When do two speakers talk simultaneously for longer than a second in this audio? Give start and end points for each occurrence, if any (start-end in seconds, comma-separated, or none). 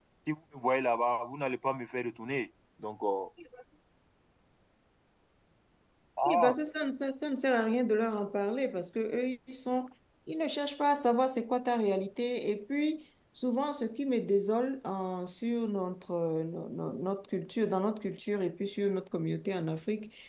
none